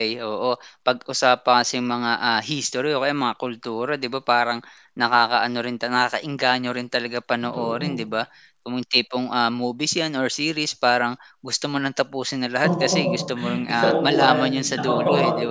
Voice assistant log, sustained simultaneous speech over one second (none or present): present